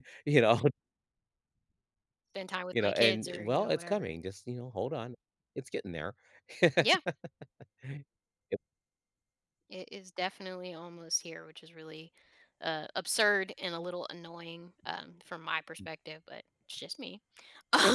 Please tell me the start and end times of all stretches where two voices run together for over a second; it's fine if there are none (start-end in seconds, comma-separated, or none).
2.8-4.1